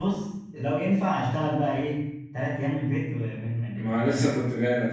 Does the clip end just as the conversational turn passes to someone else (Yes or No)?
Yes